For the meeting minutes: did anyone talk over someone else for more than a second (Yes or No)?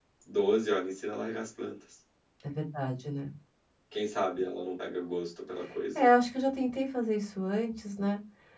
No